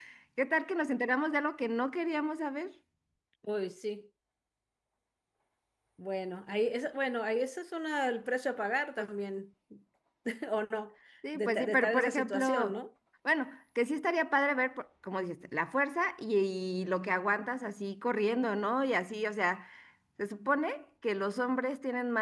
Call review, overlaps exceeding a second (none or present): present